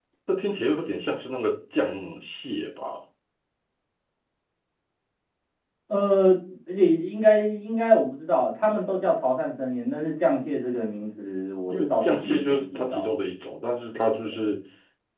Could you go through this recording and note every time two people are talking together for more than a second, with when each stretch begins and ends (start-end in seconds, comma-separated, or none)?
11.7-13.1